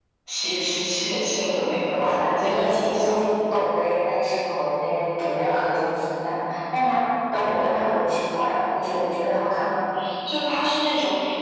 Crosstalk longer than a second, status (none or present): present